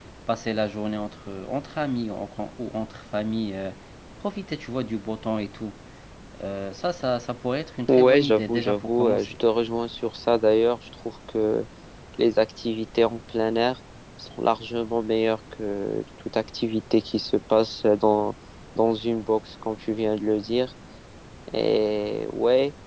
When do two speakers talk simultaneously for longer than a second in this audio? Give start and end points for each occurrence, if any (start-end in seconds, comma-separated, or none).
7.9-9.3